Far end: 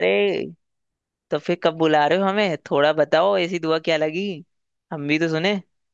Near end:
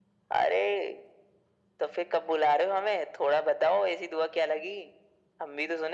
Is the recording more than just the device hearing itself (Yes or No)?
No